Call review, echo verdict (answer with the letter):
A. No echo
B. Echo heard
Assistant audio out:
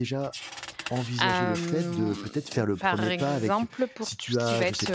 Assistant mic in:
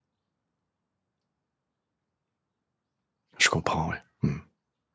A